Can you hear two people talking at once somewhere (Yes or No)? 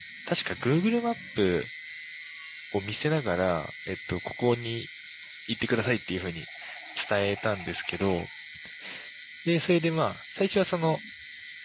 No